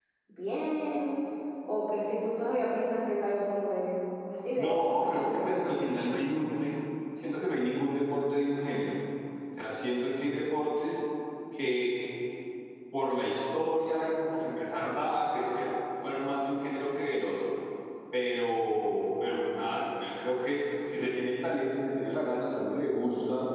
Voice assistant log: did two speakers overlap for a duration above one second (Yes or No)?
Yes